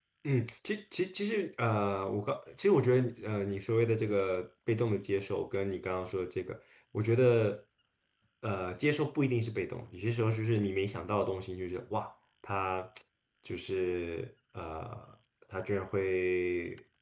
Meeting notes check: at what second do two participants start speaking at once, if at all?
none

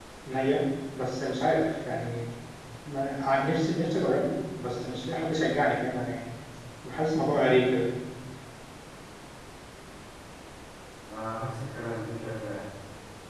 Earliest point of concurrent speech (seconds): none

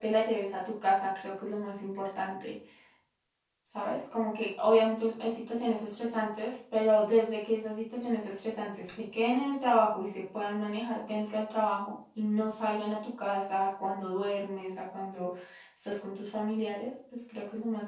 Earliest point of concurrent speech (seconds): none

